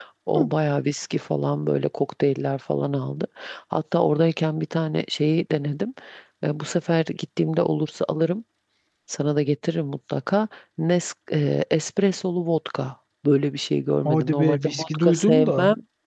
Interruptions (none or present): present